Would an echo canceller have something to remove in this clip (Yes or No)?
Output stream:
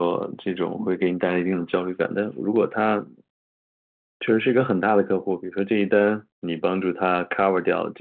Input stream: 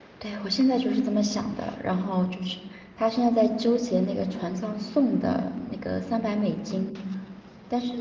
No